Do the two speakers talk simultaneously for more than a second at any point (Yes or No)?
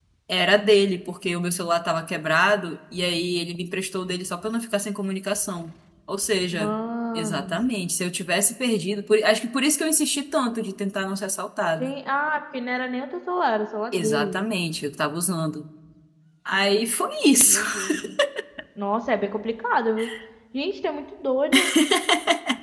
No